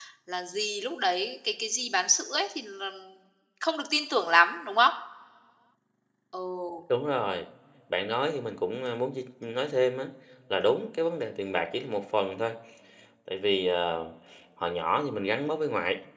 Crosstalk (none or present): none